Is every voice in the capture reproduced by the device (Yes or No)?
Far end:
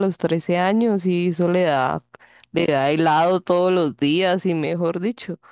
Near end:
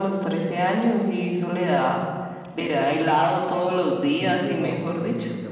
No